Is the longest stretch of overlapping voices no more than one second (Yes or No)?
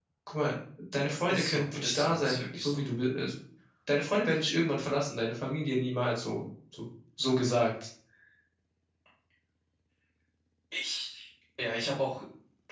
No